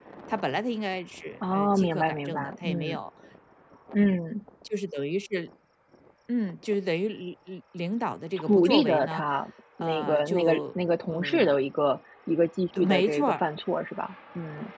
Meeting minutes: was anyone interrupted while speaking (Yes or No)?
Yes